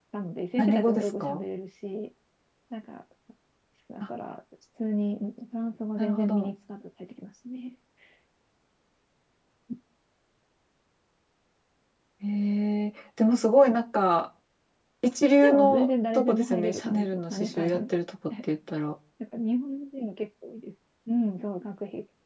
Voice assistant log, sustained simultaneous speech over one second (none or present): present